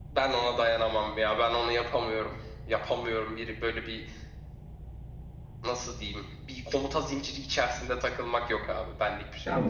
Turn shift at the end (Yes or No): Yes